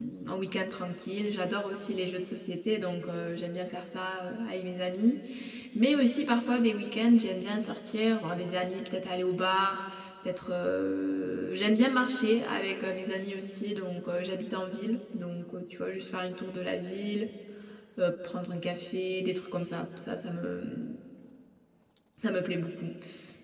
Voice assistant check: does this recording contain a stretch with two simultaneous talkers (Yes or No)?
No